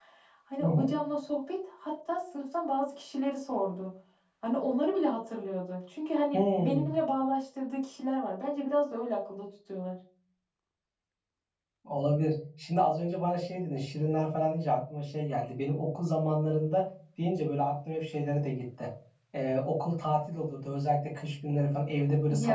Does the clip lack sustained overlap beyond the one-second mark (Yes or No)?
Yes